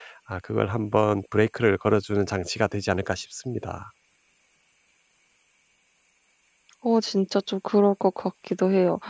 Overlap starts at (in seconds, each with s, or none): none